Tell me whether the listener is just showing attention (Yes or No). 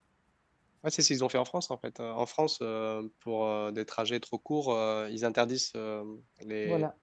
Yes